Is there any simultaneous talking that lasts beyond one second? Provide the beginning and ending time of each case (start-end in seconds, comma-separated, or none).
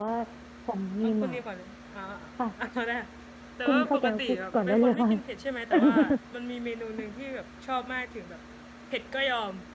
3.7-5.1